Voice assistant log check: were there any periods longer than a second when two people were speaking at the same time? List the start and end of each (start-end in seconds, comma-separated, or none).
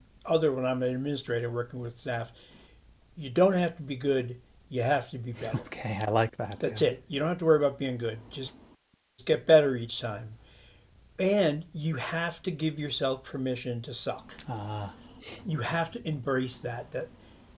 none